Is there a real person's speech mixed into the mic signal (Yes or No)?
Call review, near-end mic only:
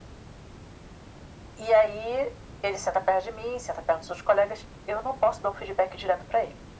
No